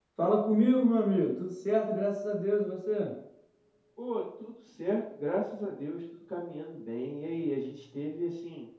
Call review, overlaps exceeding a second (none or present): none